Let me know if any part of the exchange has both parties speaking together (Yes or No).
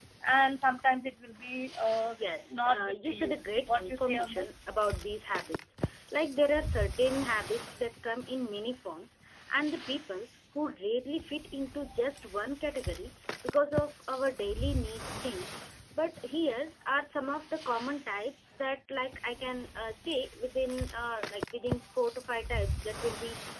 Yes